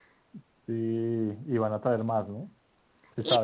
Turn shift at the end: Yes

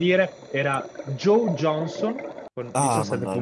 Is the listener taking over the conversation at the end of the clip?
Yes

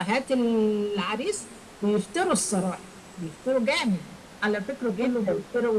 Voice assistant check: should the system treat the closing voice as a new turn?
No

